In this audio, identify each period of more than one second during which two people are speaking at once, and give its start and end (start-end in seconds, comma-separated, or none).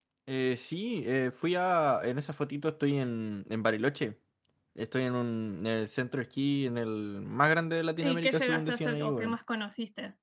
8.0-9.3